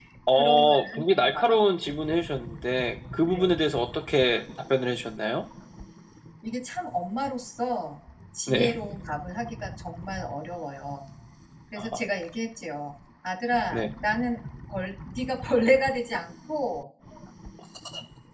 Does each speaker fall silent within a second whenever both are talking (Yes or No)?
No